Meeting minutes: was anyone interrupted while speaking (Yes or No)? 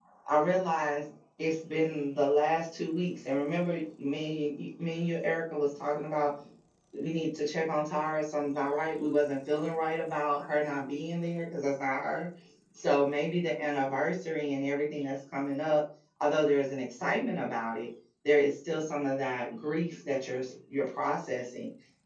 No